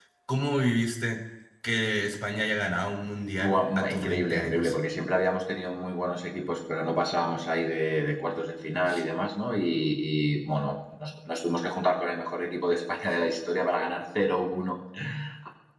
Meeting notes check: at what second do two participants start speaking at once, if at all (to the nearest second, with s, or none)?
3 s